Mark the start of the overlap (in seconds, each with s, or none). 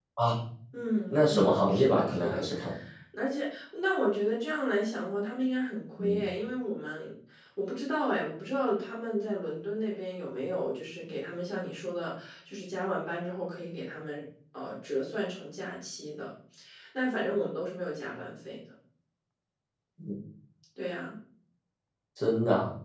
1.1 s